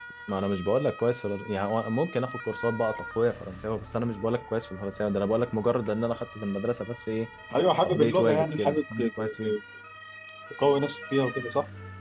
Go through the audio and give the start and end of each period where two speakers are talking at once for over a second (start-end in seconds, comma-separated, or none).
7.8-9.5